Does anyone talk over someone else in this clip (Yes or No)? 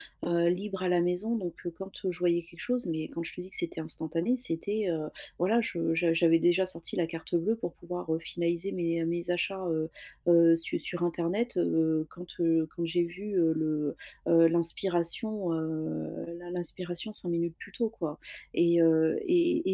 No